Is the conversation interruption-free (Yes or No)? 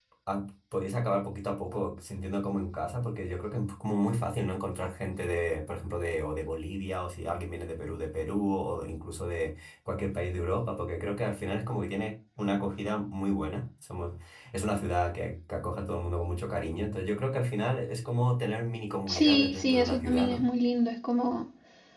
No